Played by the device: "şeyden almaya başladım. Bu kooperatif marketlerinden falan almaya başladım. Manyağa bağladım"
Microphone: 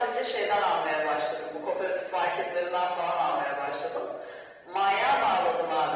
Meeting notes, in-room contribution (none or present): none